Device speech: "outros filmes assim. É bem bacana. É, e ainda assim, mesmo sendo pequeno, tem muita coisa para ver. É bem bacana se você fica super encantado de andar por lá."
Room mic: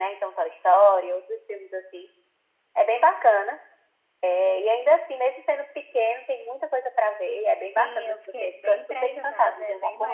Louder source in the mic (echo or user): echo